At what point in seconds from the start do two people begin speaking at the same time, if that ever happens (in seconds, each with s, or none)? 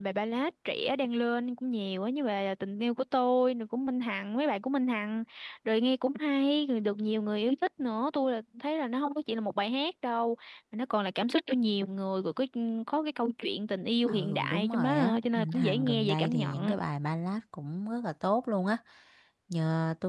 14.1 s